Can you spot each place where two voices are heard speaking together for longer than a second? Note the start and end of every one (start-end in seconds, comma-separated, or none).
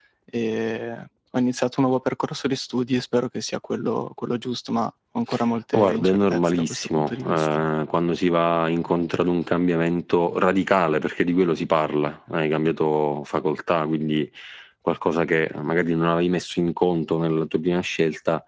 5.7-7.5